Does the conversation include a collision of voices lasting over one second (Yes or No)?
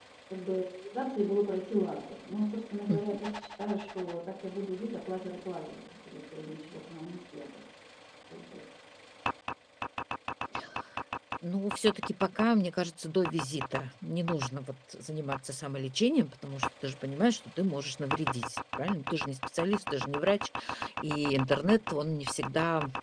No